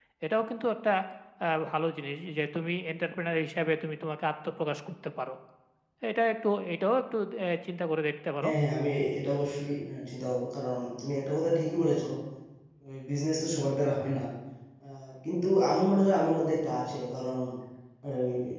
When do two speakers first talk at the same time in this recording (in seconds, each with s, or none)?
none